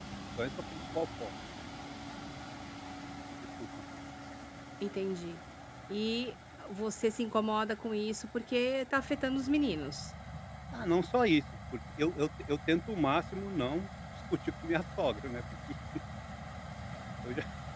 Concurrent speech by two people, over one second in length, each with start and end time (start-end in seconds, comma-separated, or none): none